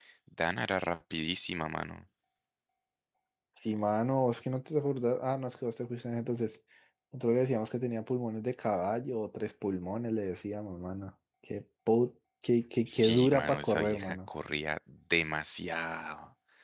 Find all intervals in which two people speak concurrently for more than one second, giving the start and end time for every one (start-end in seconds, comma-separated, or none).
12.9-14.2